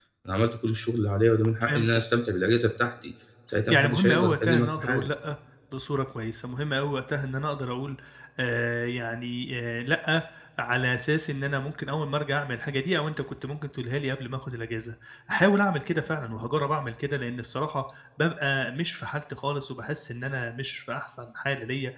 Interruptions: present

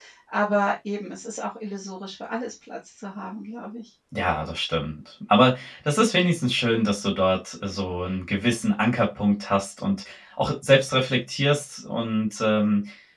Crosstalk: none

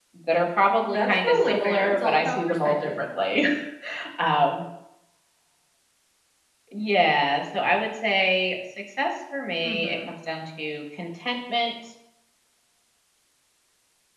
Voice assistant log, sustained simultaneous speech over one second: present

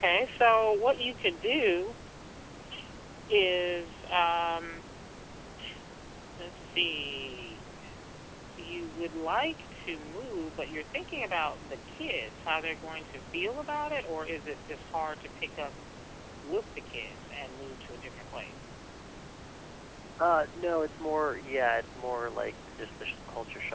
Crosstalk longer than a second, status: none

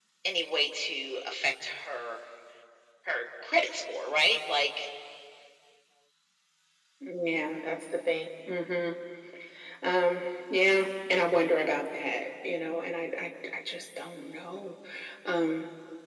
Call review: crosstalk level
none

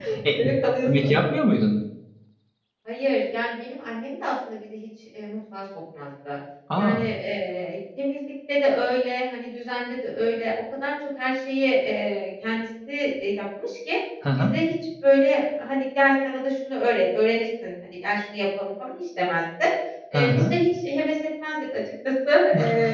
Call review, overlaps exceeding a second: none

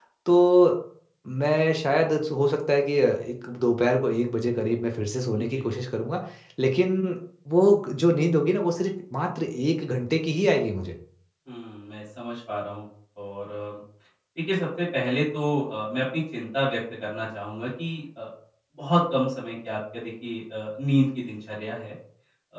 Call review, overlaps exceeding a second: none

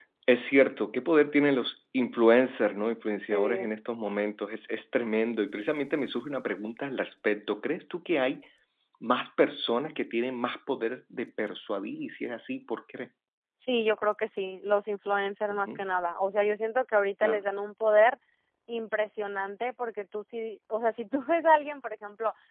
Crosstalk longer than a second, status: none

